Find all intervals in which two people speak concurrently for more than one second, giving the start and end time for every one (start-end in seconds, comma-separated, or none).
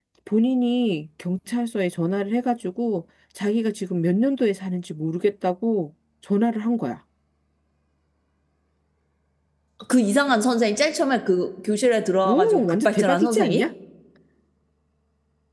12.2-13.7